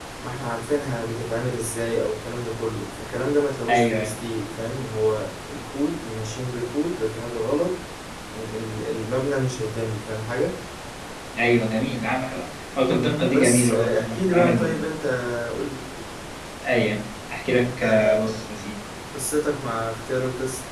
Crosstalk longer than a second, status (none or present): present